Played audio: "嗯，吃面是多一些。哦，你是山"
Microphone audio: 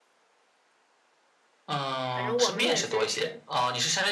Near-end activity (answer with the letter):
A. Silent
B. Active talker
B